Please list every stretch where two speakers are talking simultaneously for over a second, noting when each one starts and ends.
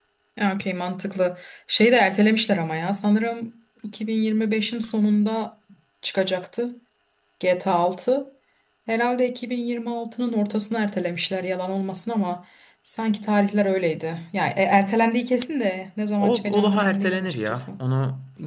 16.2-17.7

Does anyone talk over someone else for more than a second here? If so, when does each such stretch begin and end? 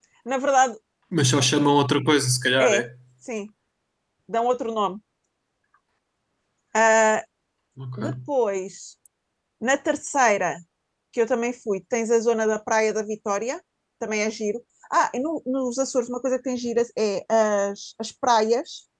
none

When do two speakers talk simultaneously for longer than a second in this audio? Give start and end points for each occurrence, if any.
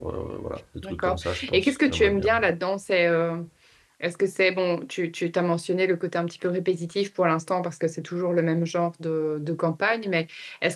0.8-2.3

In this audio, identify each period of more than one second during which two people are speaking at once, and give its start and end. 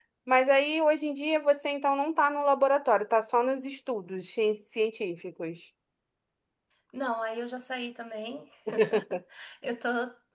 none

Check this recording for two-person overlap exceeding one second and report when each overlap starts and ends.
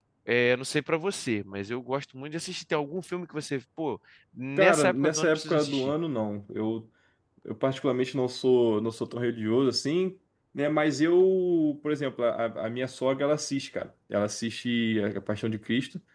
4.6-5.9

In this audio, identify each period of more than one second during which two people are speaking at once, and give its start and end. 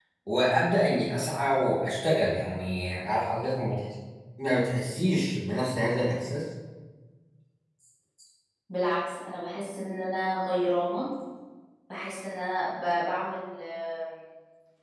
none

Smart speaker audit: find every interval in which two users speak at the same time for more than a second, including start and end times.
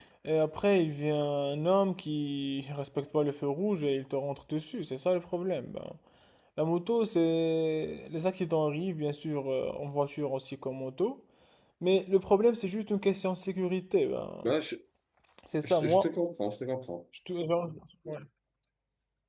none

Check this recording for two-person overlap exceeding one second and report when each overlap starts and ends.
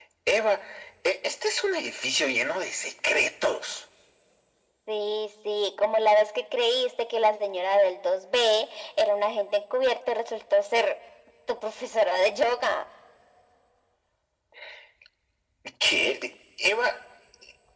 none

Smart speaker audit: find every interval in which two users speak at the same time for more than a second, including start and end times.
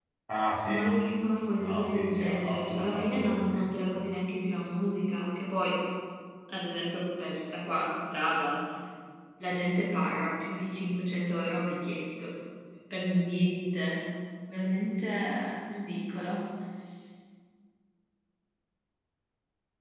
1.6-3.7

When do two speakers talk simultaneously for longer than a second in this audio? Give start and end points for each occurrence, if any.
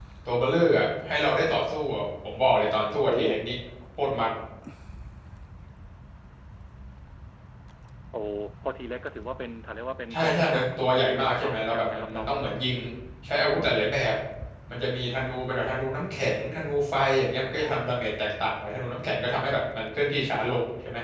10.1-12.3

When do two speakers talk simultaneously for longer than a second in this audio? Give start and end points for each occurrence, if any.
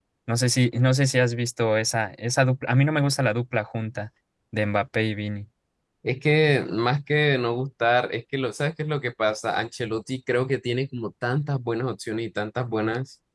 none

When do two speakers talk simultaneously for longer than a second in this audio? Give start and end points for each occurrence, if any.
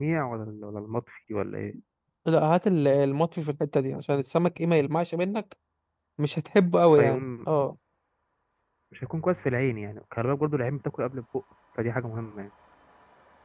none

